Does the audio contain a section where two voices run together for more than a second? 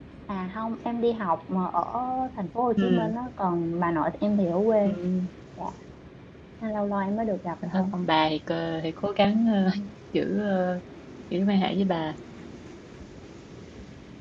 No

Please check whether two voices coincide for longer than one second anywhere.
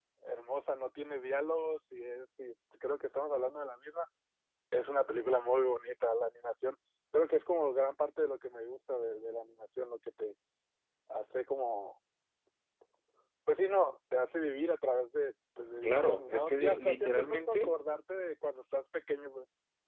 Yes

